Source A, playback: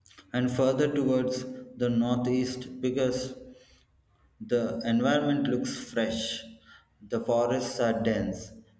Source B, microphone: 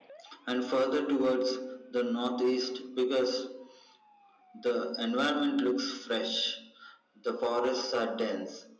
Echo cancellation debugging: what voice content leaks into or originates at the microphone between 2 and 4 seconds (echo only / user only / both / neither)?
echo only